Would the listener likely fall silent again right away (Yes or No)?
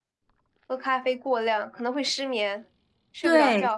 No